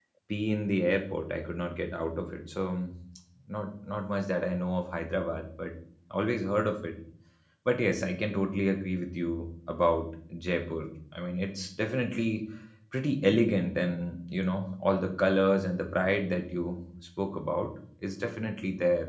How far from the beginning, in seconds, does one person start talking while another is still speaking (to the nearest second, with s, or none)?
none